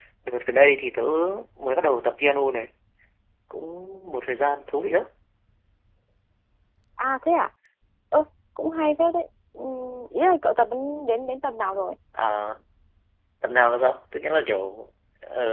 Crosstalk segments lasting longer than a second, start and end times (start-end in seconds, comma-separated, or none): none